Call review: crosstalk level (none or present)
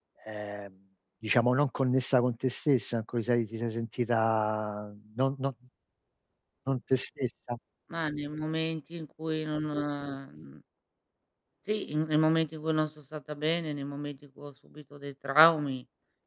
none